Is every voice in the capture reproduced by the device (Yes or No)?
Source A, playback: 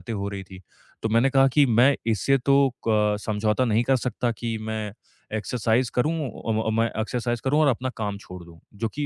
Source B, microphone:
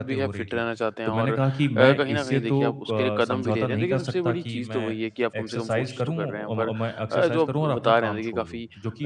No